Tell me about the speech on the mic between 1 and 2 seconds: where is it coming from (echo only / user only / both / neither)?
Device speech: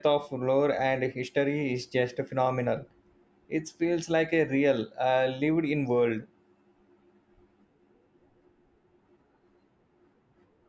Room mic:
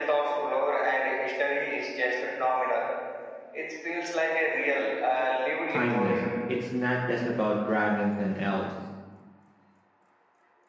echo only